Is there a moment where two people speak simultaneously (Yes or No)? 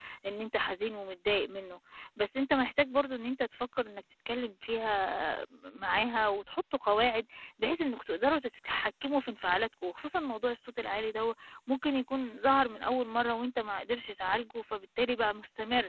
No